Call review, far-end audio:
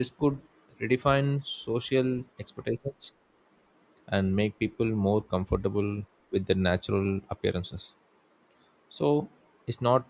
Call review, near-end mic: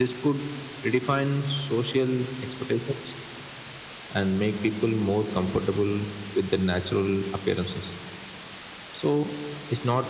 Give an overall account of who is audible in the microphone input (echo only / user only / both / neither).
echo only